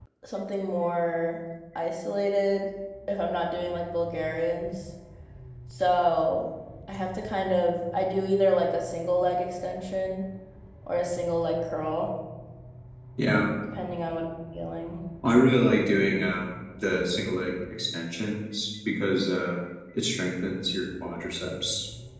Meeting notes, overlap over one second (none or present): none